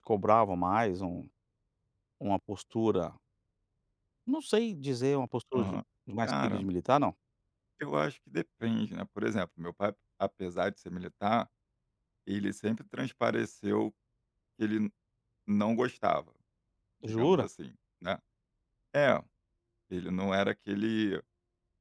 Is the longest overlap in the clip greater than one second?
No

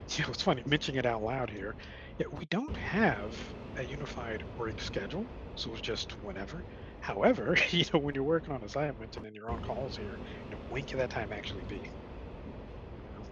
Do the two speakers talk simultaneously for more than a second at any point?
No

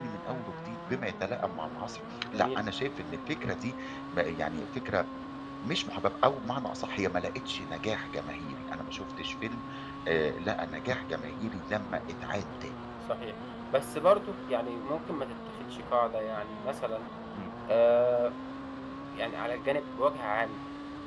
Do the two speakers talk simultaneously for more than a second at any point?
No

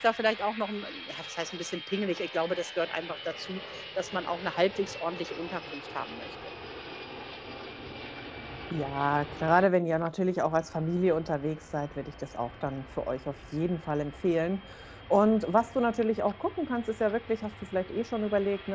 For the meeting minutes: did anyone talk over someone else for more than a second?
No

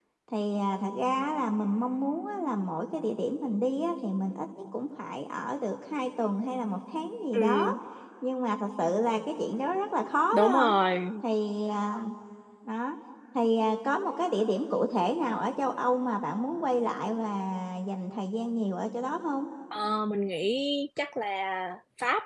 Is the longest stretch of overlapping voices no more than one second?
Yes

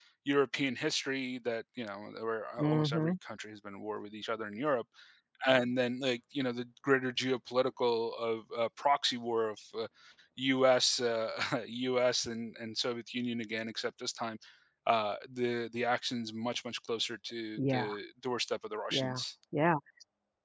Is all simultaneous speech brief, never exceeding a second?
Yes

